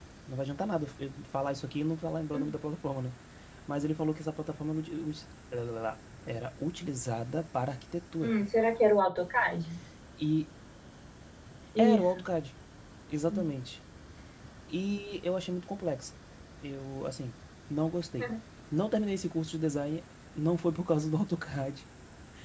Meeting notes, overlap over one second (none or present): none